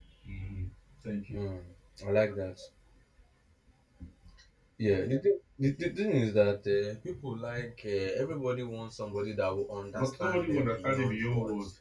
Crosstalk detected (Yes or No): Yes